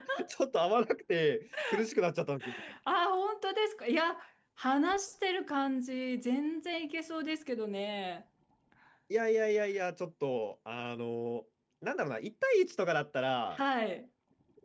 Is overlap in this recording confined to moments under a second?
Yes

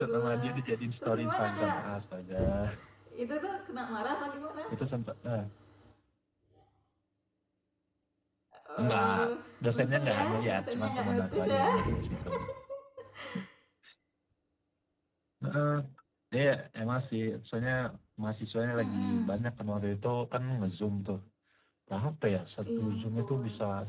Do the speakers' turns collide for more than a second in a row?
Yes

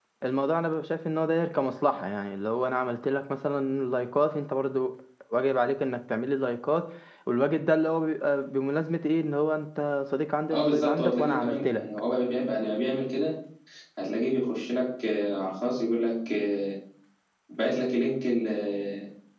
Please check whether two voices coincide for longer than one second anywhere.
Yes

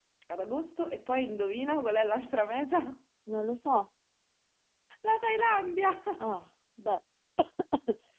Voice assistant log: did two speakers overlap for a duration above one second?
No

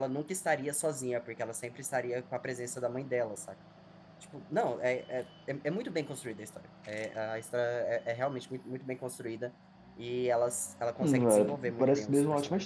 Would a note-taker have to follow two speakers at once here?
Yes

